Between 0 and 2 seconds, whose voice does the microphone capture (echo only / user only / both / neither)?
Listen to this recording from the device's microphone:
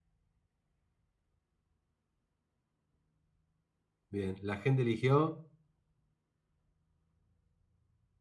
neither